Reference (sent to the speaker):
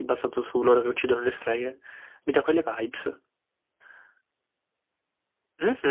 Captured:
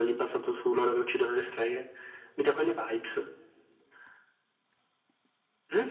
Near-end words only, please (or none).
none